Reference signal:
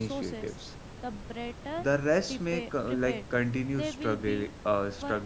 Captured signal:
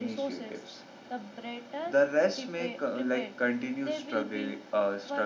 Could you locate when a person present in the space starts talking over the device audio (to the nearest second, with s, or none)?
none